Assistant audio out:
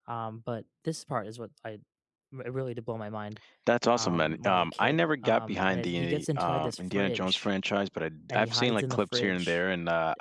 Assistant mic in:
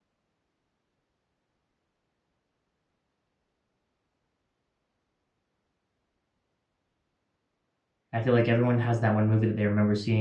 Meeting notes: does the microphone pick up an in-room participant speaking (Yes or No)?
Yes